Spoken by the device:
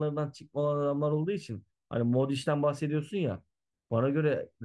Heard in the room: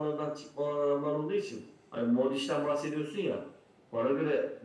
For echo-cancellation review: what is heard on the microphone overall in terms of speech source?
echo only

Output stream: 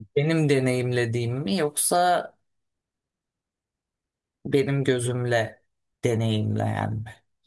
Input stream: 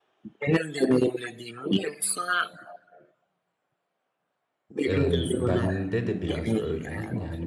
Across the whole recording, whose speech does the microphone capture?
both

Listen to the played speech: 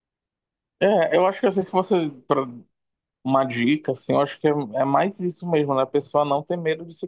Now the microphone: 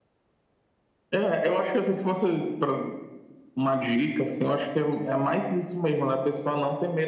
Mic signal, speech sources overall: echo only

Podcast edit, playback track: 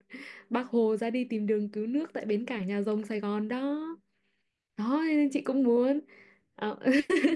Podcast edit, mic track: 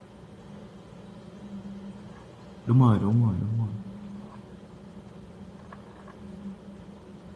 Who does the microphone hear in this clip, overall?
user only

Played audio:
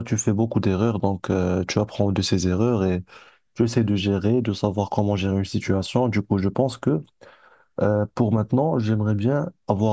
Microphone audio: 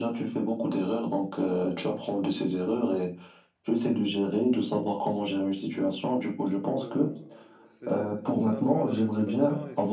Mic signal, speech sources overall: both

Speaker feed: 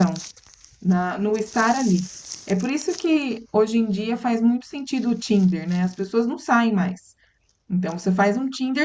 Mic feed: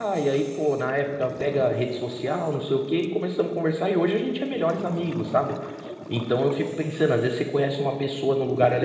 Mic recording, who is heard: user only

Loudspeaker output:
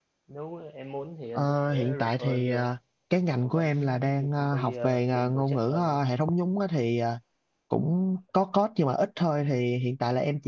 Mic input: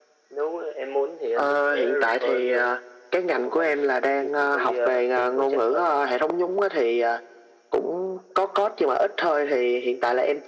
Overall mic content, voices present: echo only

